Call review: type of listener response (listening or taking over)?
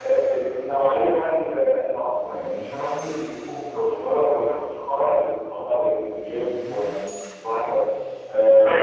taking over